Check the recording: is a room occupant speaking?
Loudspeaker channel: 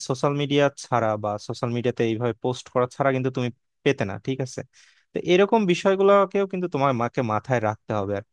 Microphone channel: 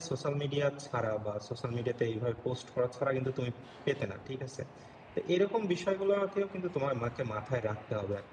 No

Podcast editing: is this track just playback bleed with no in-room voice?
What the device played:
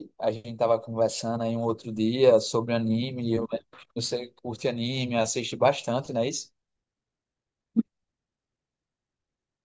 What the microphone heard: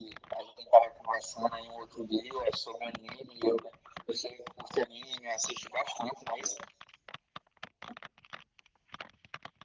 Yes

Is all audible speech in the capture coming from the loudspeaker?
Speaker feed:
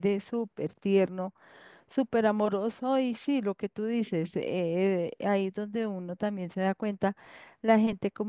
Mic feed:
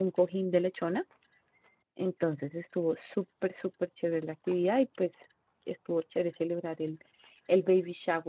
No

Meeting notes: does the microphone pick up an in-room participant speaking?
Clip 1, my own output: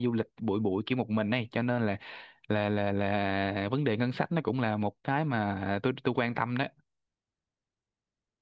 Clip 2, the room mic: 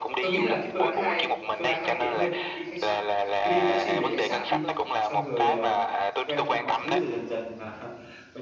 Yes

